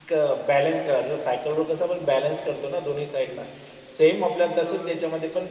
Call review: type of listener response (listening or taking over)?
listening